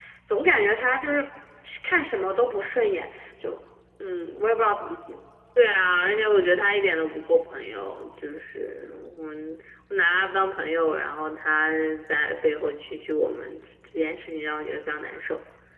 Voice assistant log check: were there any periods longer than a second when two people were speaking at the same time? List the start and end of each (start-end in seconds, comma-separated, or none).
none